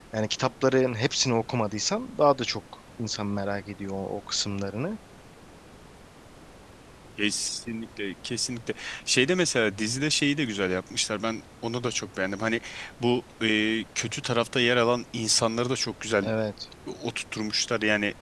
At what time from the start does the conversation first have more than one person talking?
none

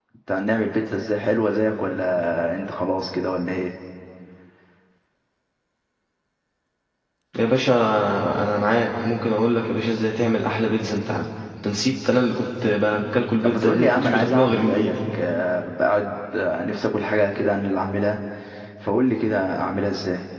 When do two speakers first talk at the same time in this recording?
13.4 s

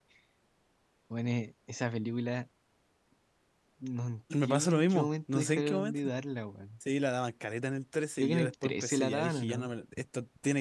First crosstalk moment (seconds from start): 4.4 s

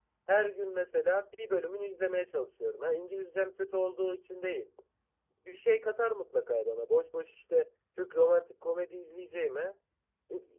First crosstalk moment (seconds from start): none

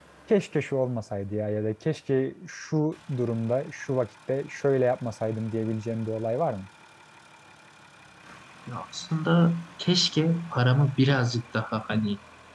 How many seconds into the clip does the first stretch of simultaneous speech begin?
none

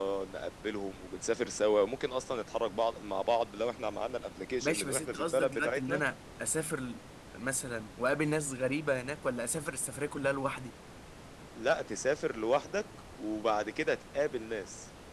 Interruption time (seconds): 4.6 s

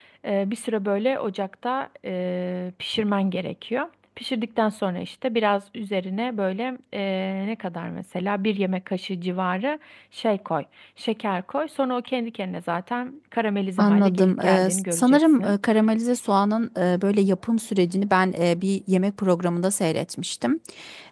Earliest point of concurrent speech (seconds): 13.8 s

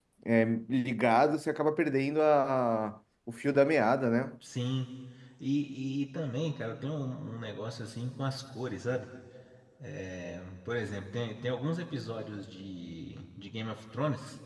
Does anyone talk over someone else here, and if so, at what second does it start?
none

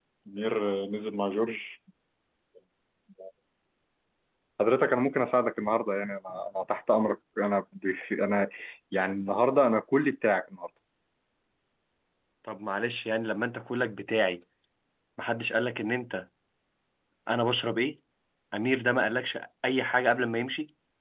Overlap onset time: none

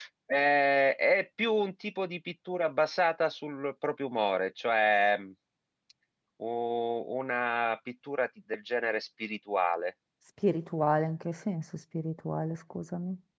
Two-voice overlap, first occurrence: none

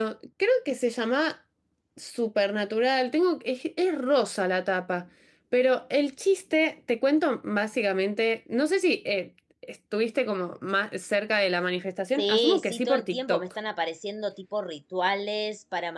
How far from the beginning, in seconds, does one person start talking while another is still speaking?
12.2 s

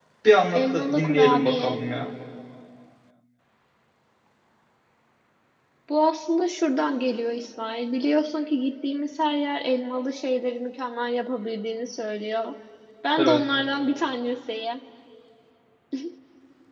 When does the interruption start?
0.5 s

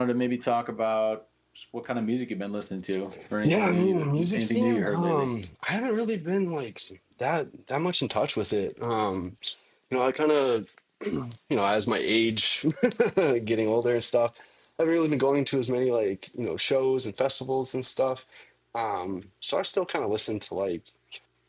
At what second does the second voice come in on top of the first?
3.4 s

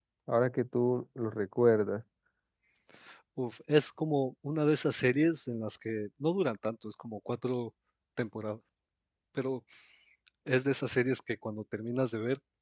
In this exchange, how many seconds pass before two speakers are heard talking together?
none

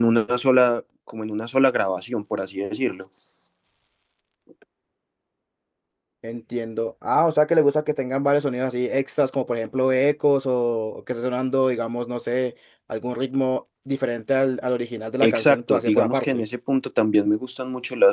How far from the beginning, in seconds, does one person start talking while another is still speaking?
15.2 s

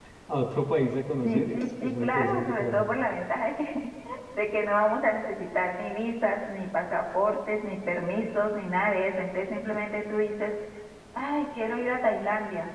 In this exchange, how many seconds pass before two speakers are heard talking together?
1.2 s

